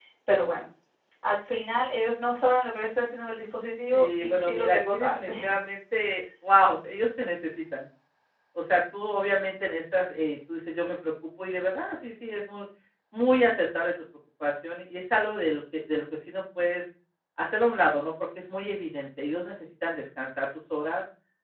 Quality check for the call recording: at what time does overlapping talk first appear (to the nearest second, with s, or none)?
4 s